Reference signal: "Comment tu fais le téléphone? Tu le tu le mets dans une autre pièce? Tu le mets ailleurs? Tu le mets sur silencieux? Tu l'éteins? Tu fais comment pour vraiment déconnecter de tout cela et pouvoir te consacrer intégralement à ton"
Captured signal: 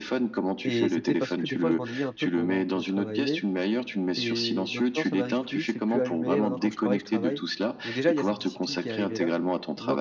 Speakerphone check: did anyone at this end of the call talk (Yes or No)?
Yes